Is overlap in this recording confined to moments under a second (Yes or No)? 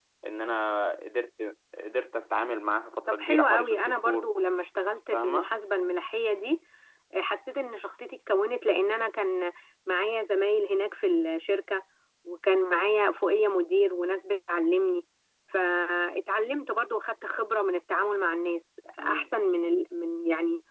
No